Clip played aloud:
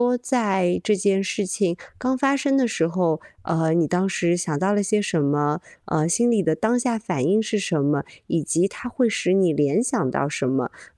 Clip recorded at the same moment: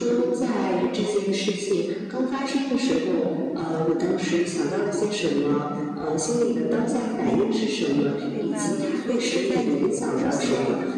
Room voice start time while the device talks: 6.9 s

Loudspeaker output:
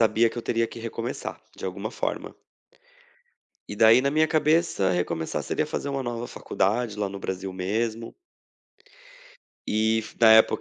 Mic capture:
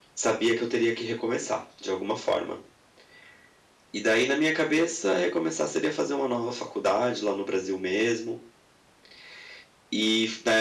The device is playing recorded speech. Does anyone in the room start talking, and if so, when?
none

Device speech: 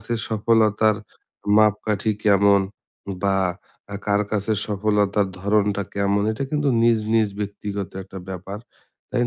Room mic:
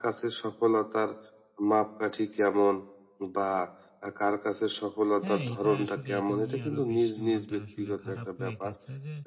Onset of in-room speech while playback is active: 5.2 s

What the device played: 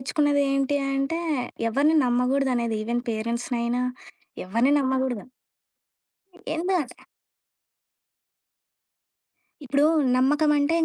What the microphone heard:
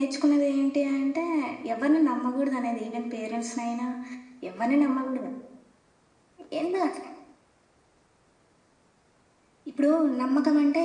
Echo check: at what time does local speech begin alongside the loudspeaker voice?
none

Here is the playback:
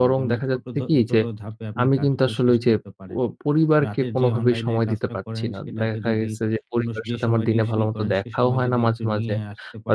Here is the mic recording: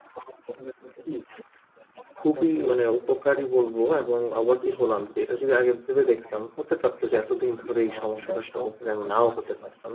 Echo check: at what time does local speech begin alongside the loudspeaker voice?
2.2 s

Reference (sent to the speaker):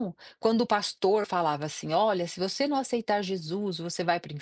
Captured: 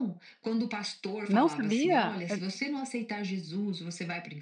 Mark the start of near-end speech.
1.3 s

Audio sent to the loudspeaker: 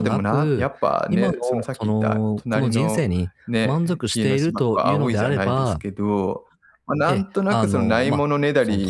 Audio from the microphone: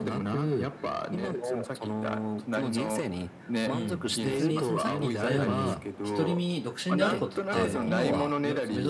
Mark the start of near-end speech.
3.7 s

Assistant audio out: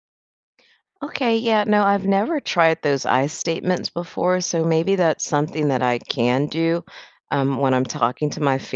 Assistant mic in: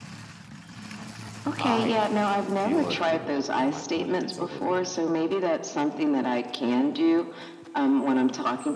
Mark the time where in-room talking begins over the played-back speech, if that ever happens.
1.6 s

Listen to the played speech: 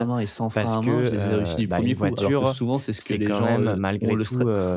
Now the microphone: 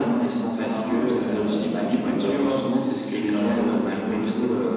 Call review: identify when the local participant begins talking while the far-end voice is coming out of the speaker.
none

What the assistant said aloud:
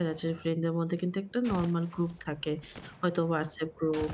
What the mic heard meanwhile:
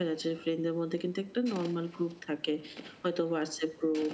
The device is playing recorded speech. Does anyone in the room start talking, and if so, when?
none

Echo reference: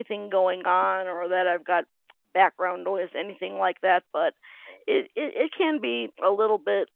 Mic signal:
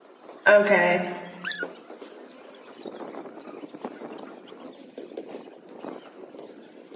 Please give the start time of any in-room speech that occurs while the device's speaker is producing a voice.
0.5 s

